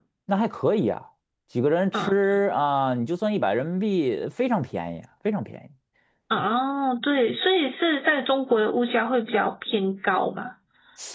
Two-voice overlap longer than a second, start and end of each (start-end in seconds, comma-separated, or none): none